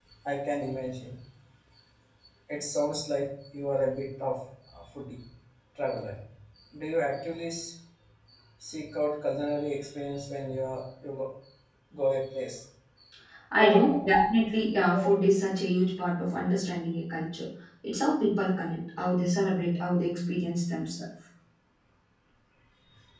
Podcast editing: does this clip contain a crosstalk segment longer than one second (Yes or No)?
No